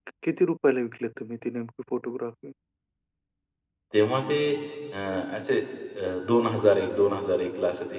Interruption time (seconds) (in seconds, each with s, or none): none